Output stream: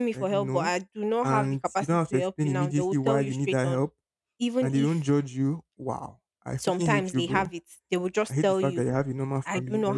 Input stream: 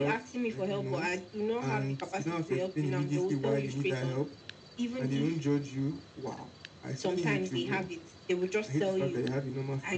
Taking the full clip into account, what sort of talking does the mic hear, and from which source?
echo only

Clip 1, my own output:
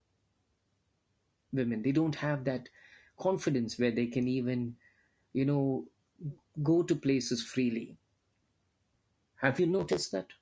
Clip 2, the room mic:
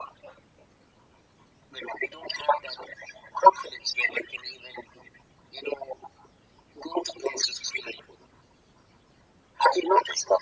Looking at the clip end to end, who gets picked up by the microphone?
echo only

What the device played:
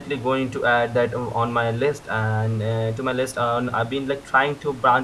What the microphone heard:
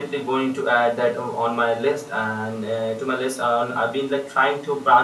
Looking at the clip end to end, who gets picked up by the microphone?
echo only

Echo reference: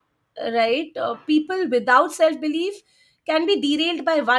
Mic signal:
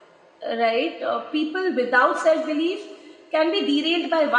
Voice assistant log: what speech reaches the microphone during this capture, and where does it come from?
echo only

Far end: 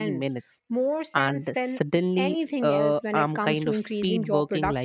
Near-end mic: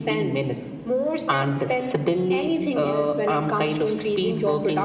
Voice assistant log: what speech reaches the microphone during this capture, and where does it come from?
echo only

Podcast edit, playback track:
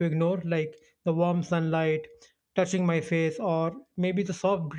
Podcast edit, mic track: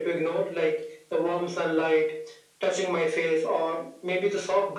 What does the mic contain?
echo only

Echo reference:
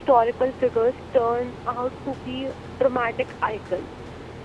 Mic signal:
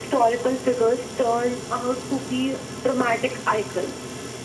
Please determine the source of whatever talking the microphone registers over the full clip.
echo only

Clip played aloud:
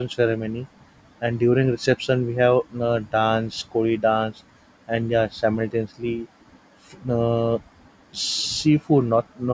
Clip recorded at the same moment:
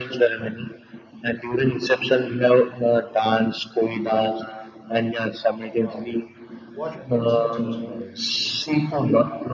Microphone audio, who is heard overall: both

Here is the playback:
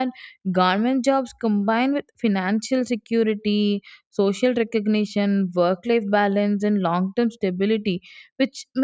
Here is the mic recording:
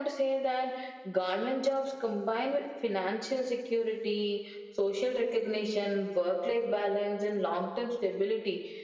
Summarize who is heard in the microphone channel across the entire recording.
echo only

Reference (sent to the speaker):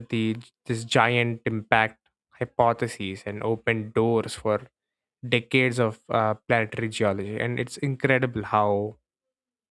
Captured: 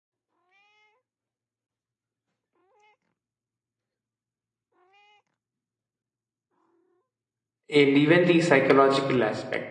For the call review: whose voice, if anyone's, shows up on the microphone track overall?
user only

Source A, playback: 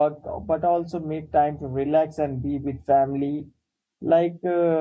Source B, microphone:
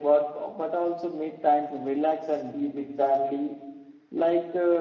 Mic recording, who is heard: echo only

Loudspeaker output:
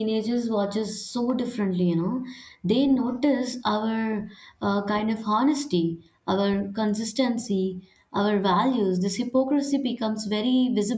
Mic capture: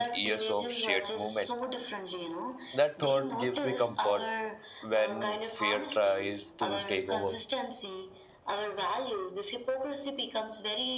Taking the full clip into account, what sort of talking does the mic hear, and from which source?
both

